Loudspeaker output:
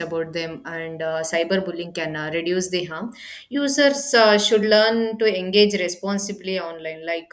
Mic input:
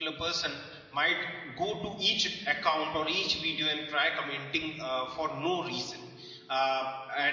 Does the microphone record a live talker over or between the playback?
Yes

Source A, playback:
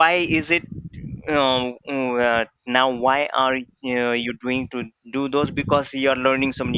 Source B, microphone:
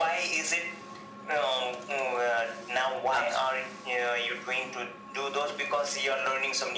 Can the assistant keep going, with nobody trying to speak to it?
No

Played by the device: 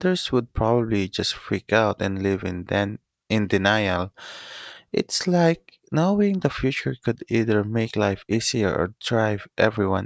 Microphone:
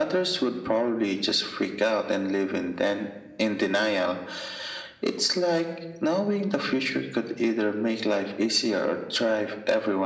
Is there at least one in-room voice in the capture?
No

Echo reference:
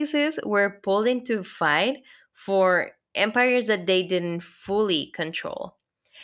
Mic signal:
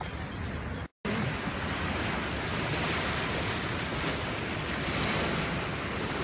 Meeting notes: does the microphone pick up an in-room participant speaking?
No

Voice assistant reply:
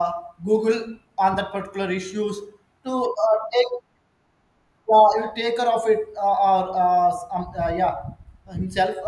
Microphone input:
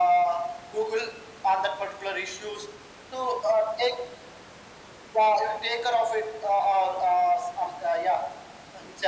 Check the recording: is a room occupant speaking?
No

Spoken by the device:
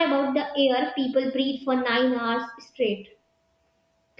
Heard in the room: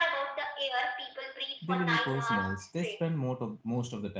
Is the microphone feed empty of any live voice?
No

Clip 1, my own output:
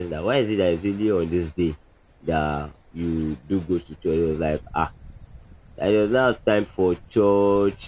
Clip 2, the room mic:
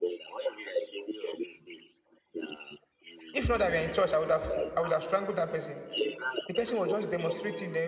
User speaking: Yes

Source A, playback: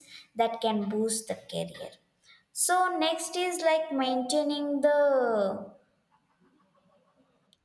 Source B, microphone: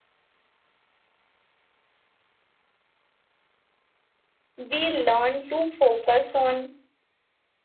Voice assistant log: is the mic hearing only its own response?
No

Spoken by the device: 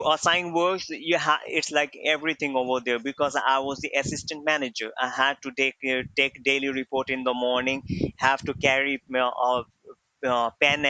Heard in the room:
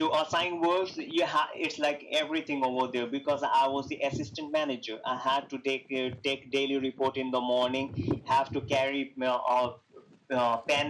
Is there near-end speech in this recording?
No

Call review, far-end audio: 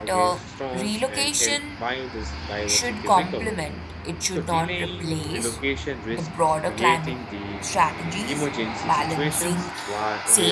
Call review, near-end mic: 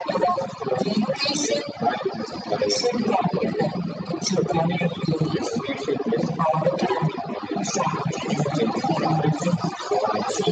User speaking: No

